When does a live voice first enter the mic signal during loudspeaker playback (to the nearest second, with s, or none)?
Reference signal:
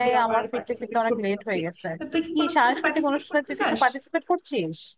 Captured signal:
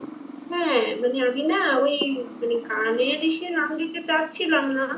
1 s